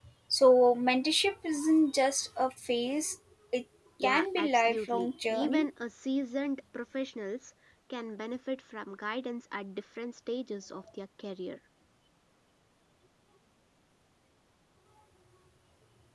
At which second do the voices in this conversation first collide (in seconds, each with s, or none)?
4.0 s